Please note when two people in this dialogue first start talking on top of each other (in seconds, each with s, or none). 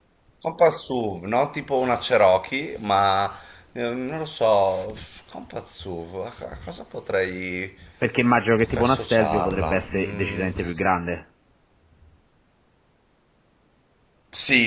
8.6 s